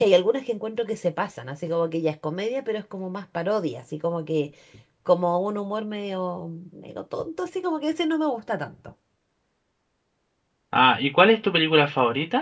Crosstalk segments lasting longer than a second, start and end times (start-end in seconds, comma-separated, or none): none